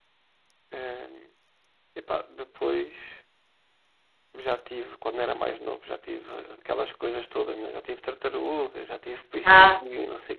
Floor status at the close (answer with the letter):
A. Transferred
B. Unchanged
B